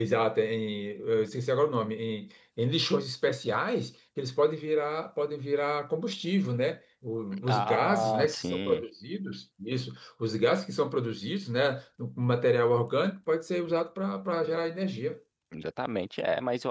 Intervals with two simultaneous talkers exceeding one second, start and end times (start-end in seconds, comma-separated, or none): 7.5-8.8